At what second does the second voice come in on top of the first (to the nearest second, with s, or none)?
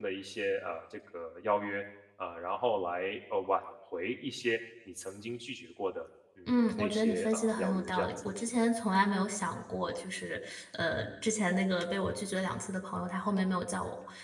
6 s